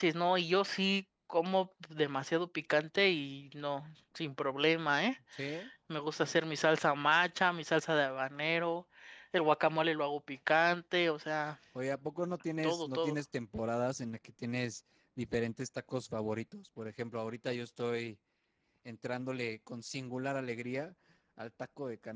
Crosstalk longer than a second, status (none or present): none